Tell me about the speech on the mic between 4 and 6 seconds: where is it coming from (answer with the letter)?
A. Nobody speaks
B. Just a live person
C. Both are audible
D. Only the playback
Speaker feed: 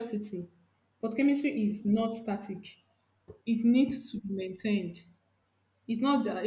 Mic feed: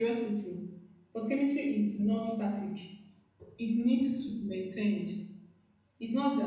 D